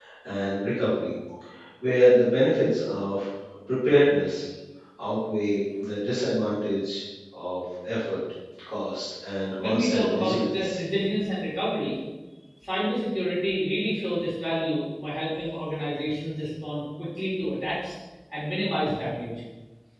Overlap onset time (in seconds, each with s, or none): 9.6 s